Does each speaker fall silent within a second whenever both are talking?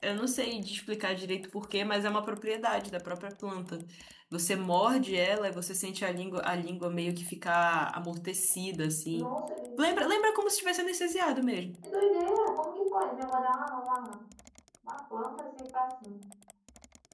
Yes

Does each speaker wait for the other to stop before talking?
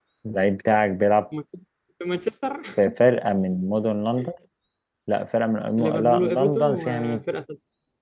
No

